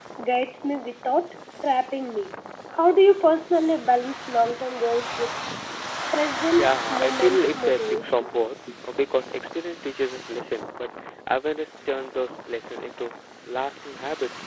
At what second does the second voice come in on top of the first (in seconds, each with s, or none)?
6.6 s